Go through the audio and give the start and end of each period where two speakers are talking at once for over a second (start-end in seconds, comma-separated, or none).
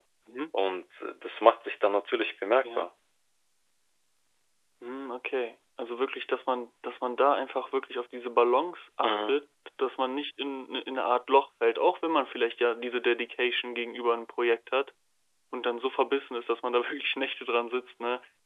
none